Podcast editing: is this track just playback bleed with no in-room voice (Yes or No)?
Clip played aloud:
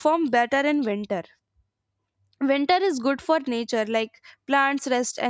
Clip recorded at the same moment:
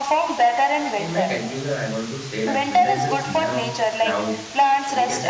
No